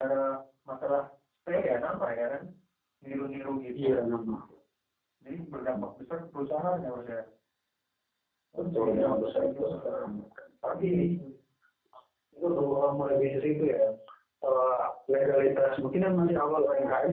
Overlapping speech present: Yes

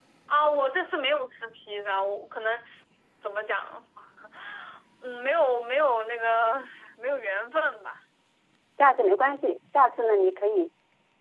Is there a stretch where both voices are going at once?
No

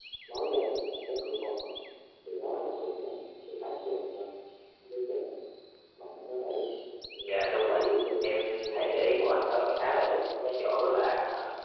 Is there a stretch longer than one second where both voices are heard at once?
Yes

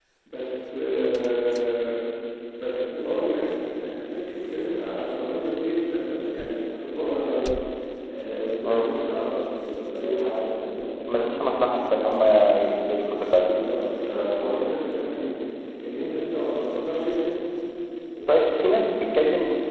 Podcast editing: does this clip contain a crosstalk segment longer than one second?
No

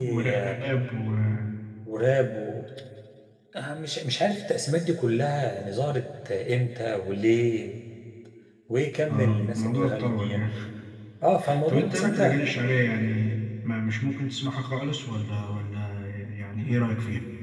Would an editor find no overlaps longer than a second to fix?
No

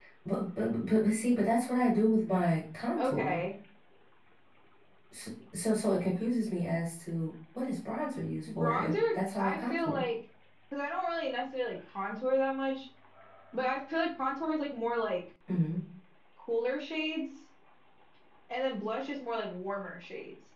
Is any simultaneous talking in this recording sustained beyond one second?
Yes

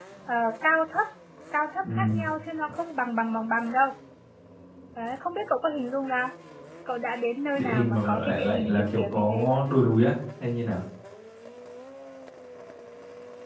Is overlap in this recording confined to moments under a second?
No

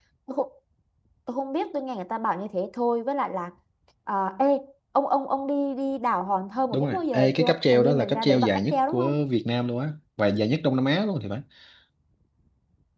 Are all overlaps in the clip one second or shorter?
No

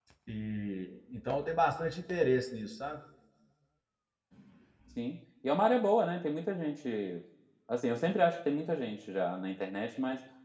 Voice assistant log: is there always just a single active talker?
Yes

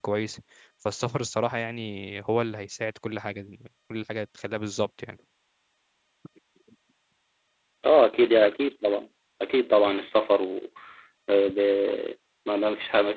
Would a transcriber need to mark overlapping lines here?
No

